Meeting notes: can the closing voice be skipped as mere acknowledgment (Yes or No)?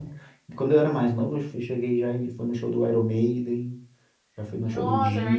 No